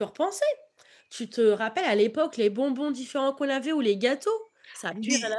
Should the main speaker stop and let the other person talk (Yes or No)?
Yes